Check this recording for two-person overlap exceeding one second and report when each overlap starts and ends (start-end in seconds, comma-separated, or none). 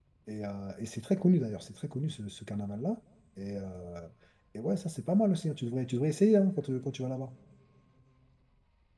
none